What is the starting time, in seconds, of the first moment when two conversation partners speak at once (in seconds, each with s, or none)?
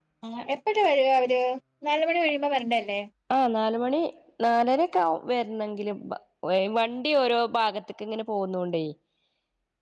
none